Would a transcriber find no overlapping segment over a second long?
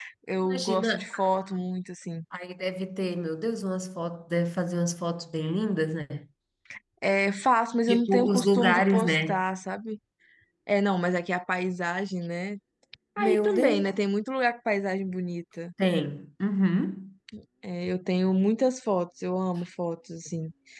No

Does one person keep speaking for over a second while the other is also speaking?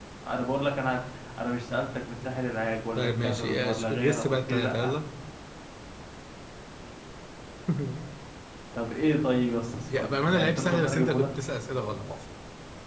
Yes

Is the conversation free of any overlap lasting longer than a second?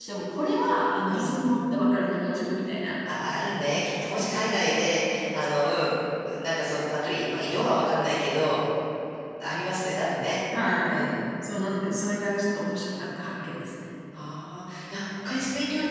Yes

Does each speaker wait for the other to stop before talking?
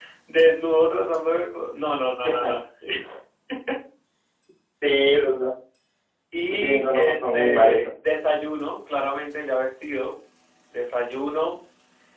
No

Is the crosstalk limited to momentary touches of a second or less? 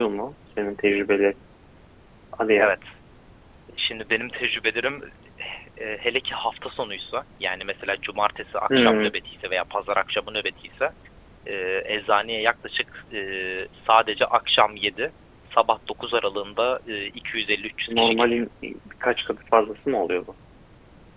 Yes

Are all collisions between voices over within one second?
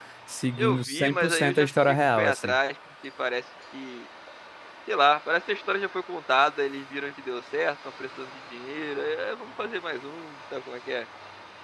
No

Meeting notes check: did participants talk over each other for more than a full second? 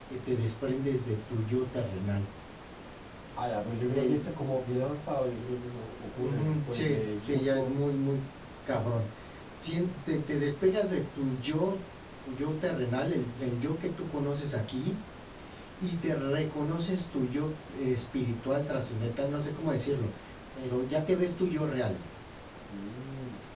Yes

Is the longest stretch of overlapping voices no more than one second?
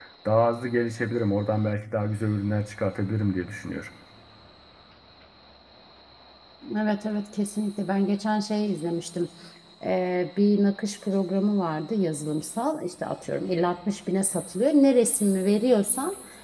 Yes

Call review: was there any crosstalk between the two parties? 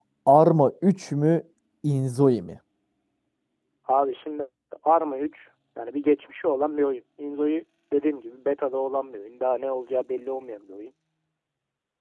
No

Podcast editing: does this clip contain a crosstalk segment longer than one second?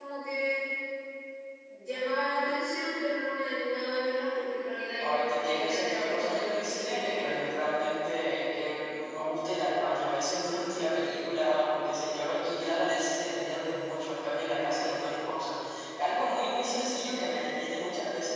Yes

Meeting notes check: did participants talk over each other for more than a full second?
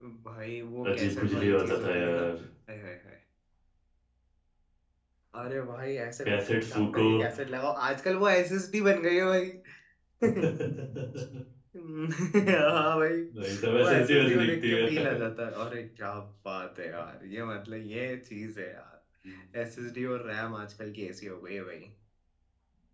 Yes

